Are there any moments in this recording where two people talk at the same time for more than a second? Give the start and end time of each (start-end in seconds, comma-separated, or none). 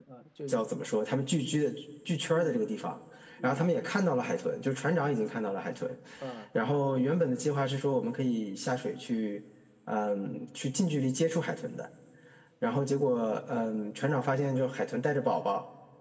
none